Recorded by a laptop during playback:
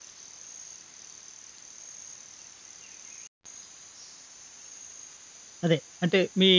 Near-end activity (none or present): present